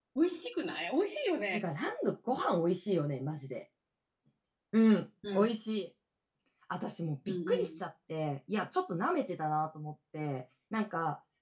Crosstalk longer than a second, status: none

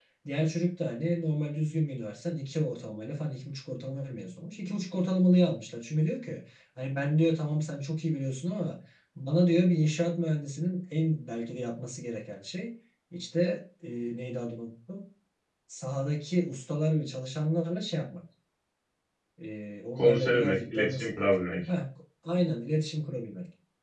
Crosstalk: present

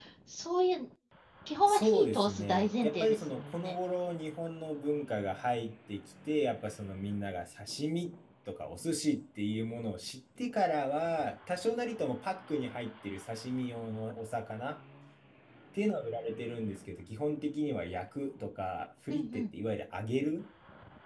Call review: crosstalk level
present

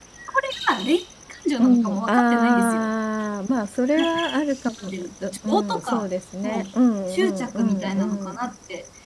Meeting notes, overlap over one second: present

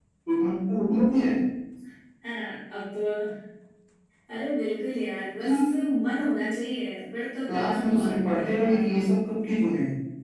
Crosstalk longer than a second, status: present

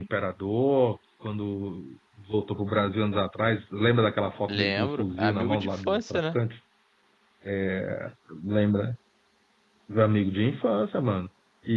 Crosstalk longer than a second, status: present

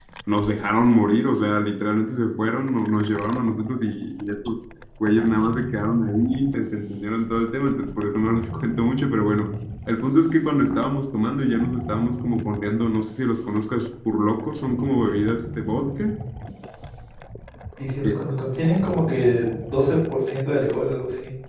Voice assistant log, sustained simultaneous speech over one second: none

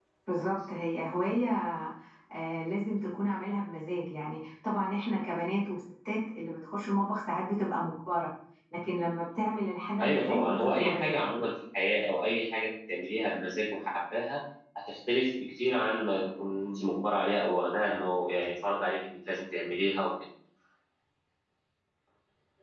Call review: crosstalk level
present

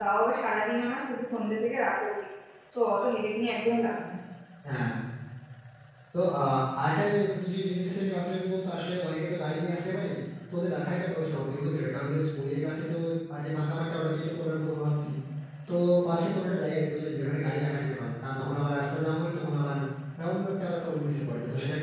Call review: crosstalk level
none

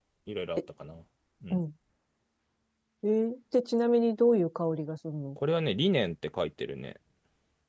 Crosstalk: none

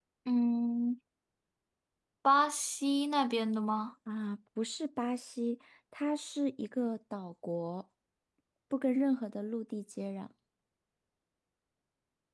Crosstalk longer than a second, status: none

